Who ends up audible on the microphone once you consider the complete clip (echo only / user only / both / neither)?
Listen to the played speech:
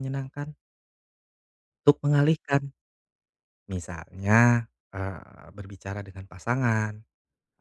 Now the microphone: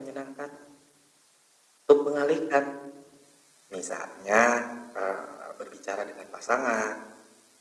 echo only